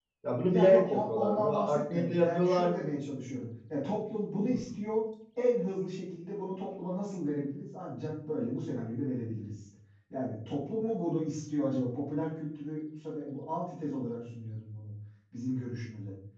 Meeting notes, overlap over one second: present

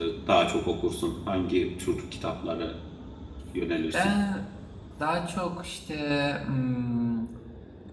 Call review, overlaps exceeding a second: none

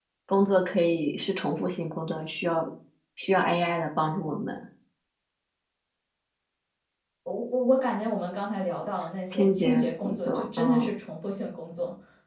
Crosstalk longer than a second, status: present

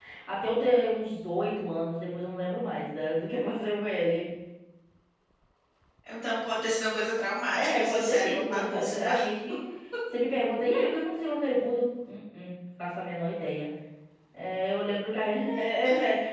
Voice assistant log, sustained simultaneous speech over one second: present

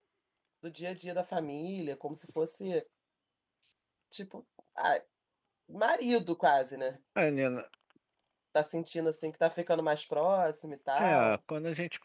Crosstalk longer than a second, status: none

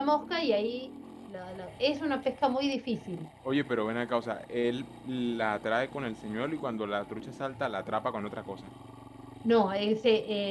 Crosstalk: none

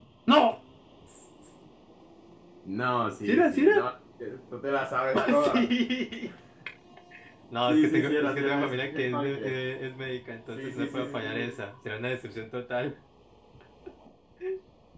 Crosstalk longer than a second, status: present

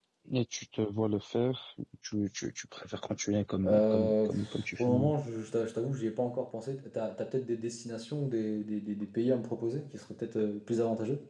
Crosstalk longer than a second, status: present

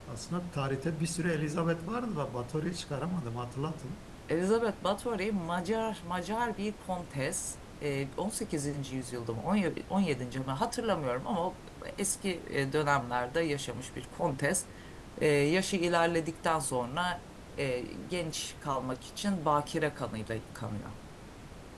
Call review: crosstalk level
none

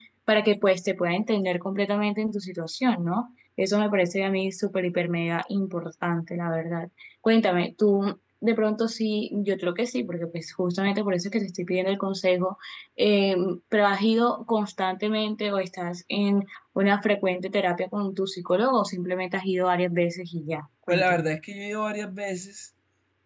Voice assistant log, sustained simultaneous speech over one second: none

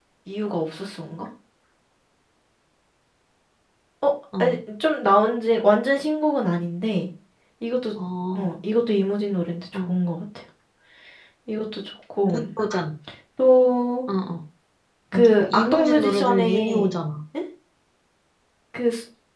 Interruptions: present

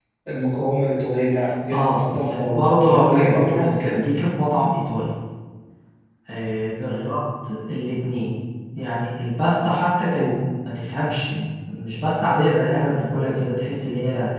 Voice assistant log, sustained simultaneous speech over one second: present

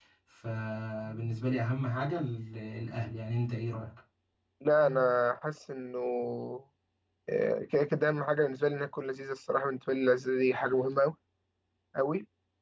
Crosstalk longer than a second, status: none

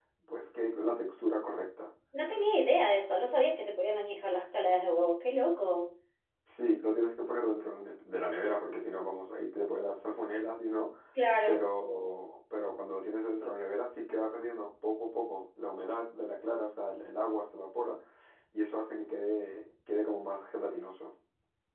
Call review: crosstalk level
none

